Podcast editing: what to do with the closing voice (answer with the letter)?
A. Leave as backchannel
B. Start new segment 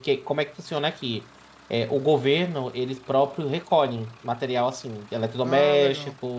A